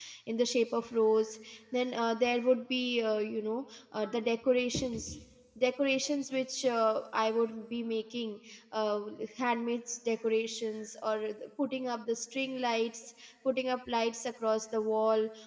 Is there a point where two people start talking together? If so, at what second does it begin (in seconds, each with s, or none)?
none